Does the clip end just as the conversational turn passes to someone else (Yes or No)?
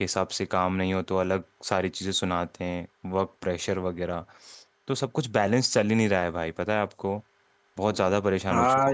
Yes